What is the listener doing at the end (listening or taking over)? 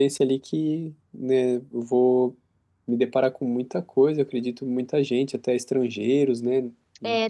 taking over